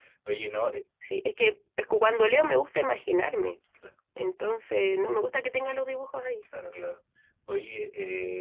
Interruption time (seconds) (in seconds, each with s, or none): none